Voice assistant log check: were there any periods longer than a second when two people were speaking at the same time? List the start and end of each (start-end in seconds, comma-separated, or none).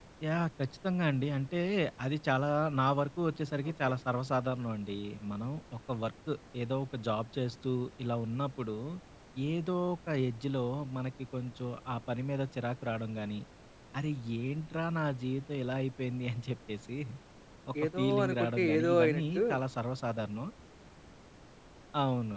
18.0-19.4